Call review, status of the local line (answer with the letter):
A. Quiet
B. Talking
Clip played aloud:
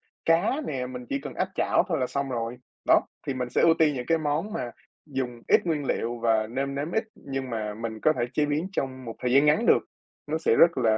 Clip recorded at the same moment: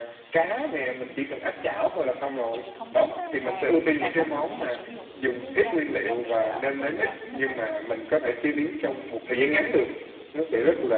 B